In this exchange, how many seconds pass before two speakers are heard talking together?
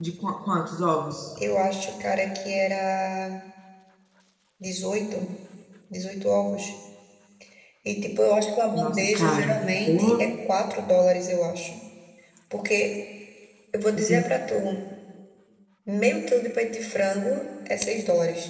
8.8 s

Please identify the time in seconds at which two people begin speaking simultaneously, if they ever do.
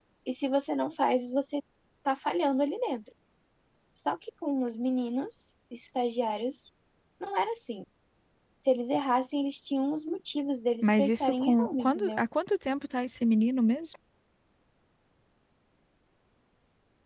10.8 s

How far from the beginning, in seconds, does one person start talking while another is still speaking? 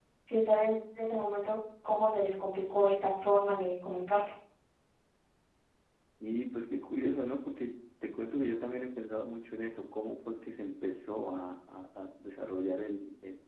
none

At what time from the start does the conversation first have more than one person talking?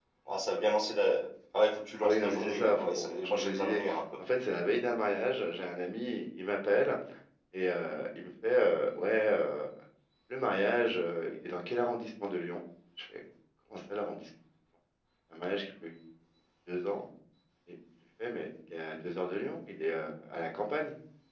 2.0 s

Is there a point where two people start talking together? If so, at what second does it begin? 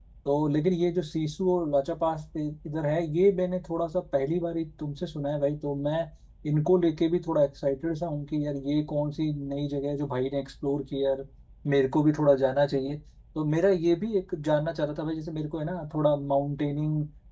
none

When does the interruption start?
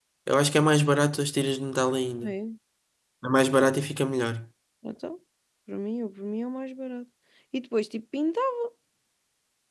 none

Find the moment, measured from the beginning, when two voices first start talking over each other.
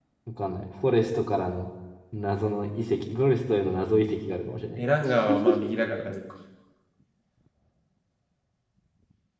none

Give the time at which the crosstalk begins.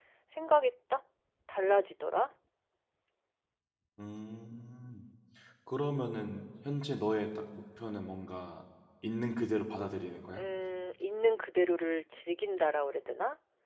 none

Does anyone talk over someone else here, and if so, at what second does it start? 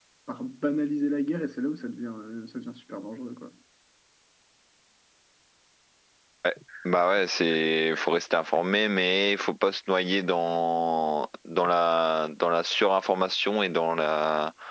none

